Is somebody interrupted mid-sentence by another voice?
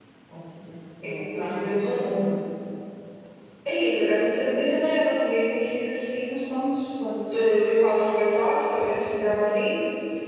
Yes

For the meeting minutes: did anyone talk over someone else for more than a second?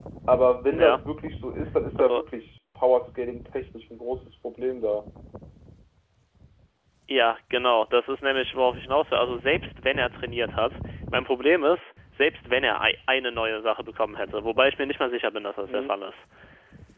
No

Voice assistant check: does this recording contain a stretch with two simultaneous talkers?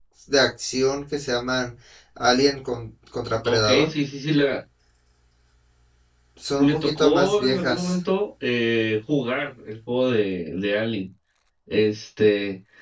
Yes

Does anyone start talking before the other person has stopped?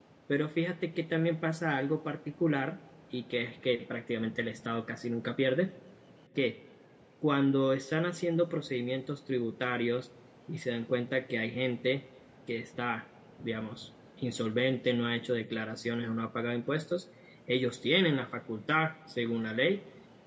No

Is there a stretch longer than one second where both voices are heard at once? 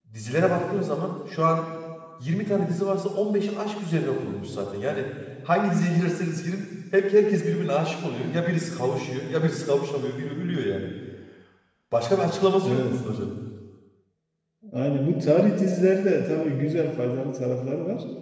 No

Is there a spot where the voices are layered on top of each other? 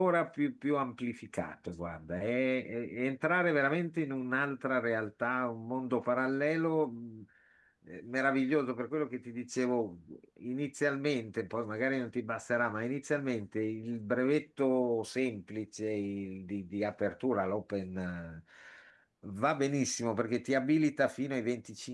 No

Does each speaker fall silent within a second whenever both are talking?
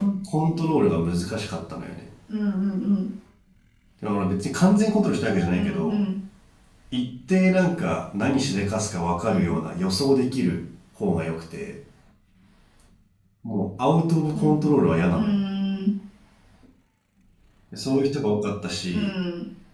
Yes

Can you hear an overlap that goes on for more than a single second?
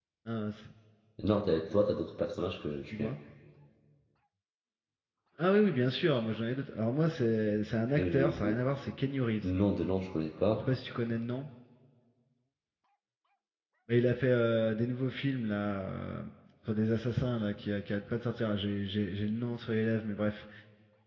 No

